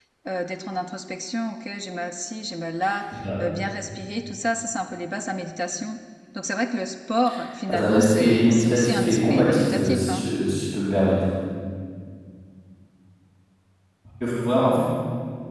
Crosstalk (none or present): present